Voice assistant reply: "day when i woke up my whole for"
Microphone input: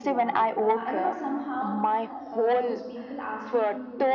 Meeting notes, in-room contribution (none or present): present